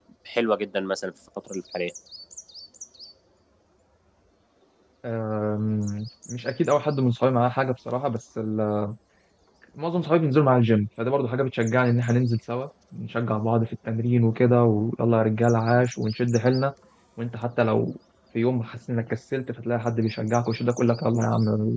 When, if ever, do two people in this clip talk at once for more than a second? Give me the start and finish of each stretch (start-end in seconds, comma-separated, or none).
none